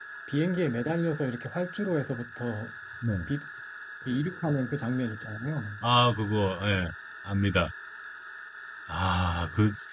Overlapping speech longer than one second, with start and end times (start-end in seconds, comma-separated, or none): none